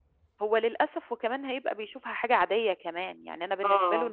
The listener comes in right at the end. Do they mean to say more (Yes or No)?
No